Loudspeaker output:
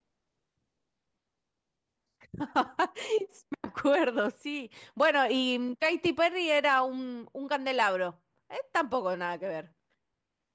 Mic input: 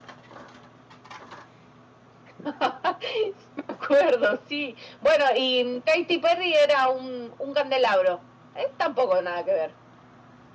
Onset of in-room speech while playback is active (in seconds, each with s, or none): none